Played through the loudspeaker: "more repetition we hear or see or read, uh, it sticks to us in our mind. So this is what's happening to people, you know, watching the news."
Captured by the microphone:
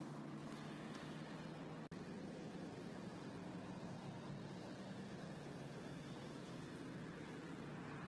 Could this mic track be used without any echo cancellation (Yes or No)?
Yes